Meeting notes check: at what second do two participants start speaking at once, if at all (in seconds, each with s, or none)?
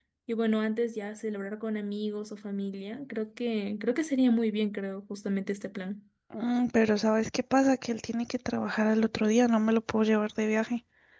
none